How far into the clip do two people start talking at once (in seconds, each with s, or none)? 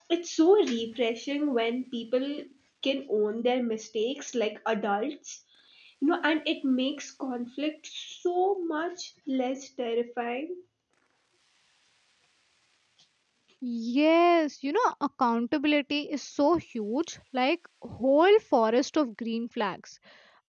none